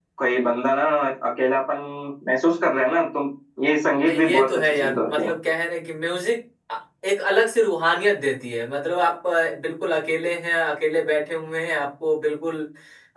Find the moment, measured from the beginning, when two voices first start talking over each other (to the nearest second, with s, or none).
4 s